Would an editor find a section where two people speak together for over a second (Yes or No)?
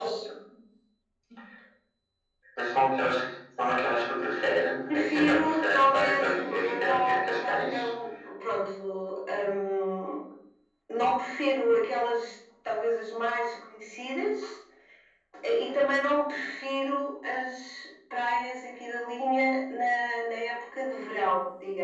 Yes